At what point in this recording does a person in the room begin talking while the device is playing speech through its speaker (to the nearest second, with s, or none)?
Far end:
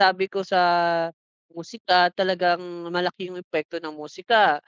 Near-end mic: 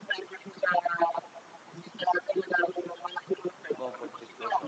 4 s